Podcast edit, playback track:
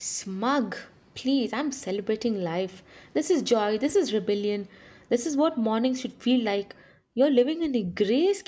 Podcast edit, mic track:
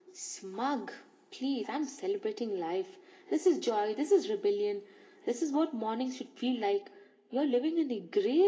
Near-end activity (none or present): none